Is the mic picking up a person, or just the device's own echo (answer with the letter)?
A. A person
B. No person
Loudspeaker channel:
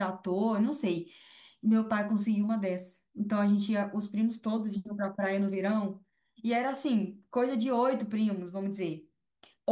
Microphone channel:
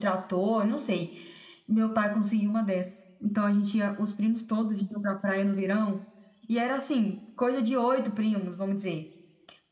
B